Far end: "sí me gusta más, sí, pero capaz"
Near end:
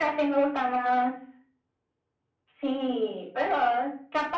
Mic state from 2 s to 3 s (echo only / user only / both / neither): echo only